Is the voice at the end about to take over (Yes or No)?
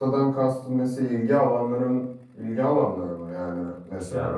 Yes